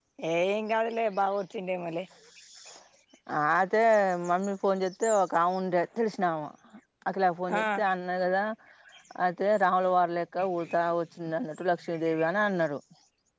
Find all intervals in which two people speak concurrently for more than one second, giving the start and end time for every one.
none

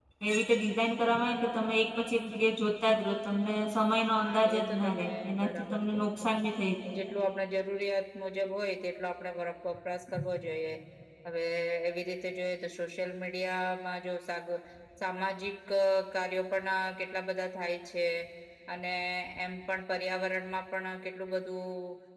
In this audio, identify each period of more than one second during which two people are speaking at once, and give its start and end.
3.9-6.3

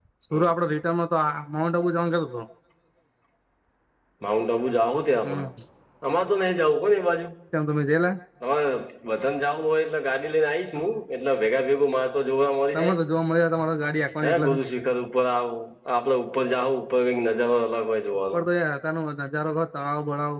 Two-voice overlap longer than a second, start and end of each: none

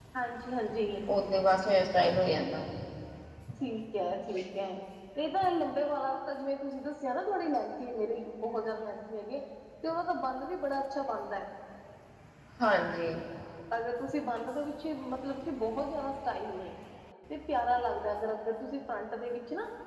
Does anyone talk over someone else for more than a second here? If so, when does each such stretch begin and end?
none

